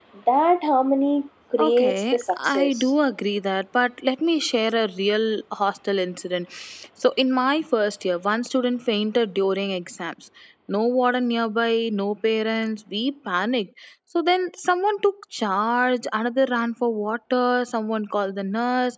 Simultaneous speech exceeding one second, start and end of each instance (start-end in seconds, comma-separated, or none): 1.6-2.9